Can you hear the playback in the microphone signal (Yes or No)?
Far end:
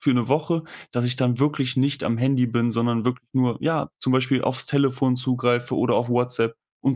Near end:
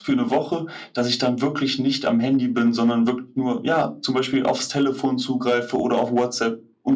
Yes